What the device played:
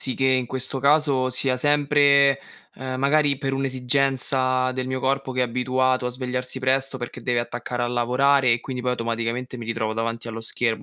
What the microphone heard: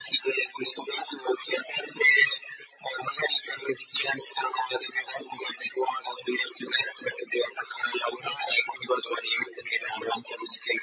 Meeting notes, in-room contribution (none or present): none